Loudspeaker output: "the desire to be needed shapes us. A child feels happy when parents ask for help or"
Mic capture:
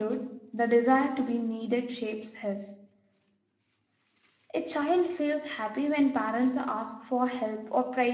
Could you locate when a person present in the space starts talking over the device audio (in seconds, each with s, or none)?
none